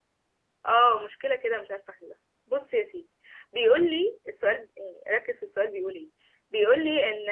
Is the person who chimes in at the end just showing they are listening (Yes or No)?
Yes